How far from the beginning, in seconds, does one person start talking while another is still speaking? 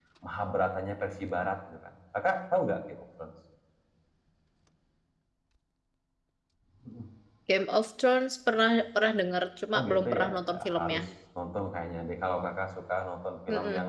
9.7 s

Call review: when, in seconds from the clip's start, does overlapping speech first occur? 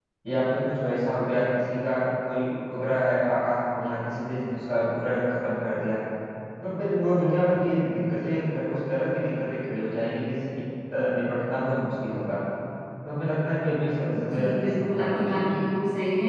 14.1 s

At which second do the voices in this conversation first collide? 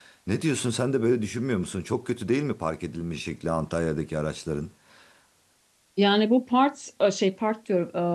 none

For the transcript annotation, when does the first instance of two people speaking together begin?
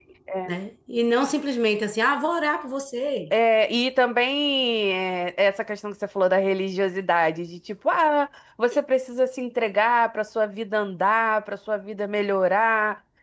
none

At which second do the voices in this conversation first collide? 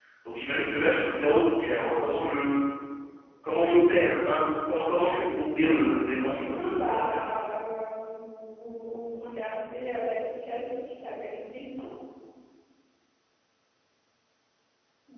5.9 s

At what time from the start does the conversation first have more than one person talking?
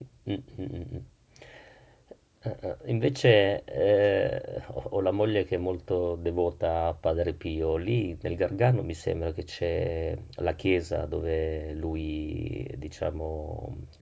none

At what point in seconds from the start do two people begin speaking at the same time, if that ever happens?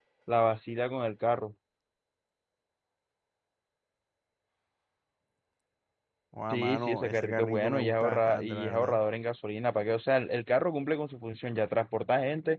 6.5 s

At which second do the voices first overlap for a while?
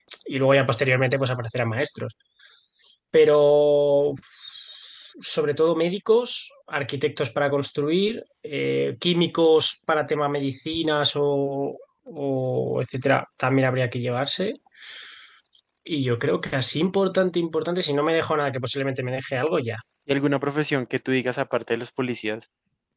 none

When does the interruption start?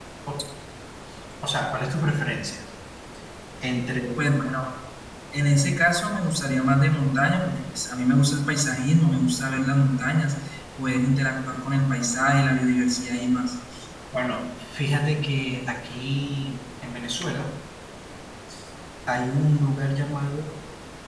none

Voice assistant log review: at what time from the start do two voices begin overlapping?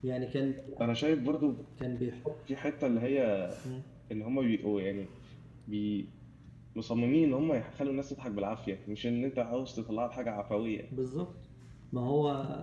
none

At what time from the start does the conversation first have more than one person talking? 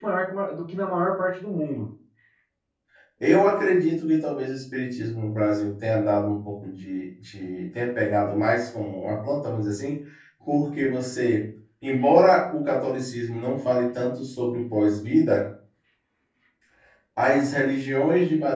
none

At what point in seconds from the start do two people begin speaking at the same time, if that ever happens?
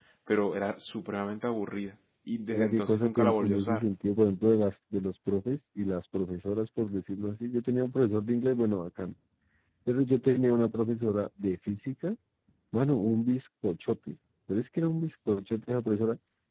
2.5 s

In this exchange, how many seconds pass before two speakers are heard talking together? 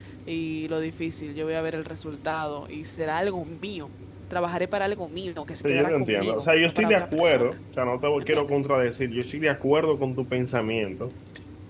5.6 s

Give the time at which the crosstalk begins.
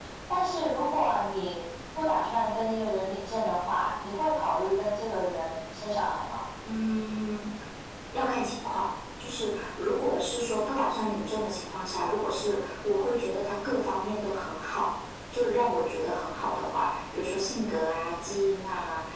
none

